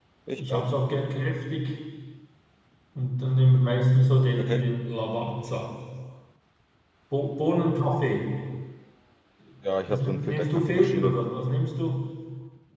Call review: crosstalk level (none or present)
present